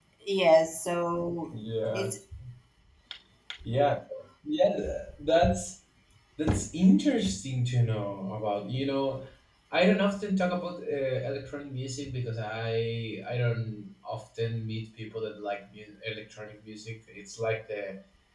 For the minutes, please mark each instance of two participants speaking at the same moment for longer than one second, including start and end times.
none

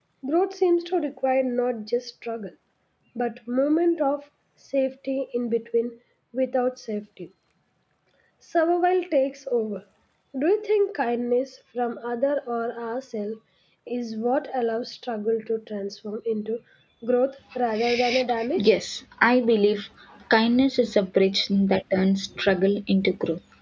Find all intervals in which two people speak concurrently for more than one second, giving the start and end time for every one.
none

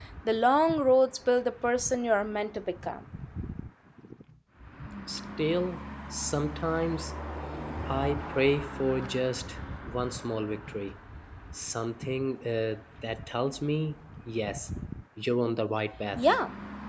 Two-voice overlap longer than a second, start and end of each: none

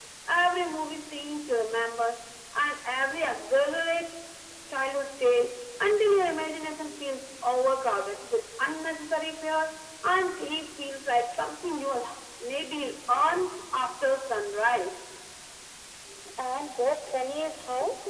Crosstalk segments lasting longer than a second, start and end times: none

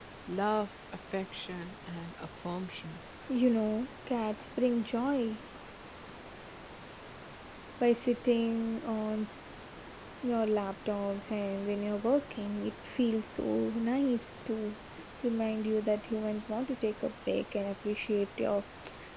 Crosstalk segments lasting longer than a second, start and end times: none

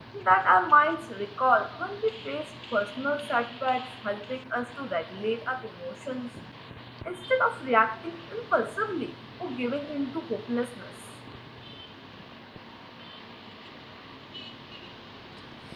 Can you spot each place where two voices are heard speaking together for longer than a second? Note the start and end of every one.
none

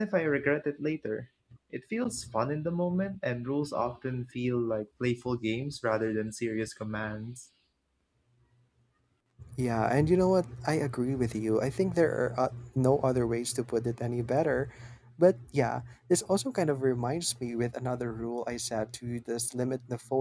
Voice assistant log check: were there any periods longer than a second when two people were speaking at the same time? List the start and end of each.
none

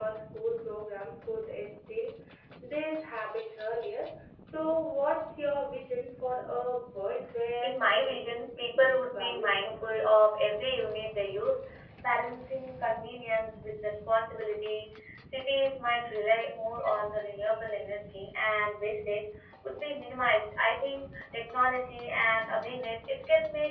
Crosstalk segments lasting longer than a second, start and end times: 7.6-10.1

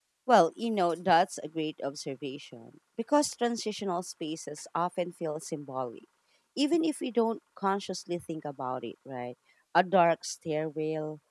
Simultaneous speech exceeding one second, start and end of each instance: none

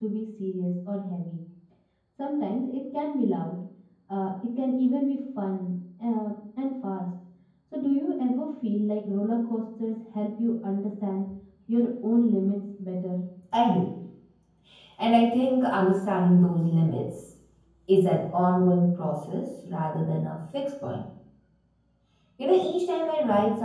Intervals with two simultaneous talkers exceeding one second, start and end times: none

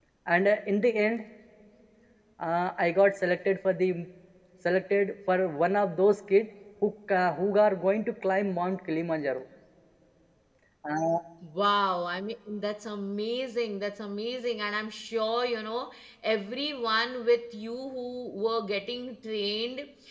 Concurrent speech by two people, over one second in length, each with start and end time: none

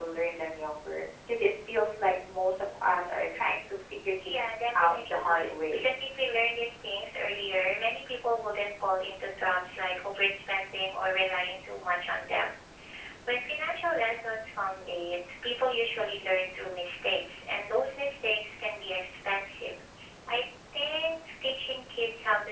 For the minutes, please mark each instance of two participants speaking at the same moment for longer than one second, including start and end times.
4.2-5.9

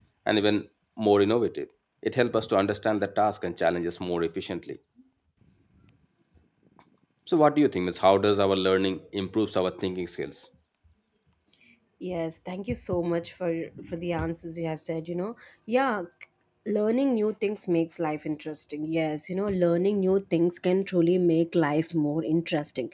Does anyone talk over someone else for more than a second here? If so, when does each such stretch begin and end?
none

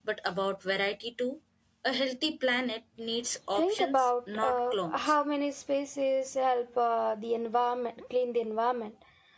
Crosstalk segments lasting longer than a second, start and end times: 3.5-5.2

